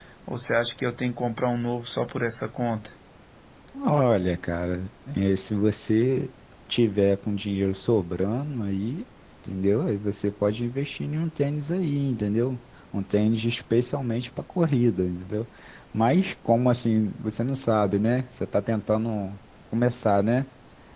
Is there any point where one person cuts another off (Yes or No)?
No